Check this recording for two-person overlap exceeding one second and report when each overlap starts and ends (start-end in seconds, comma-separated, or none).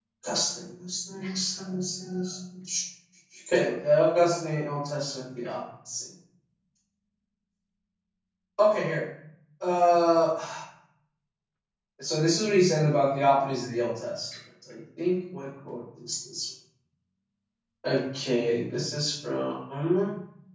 none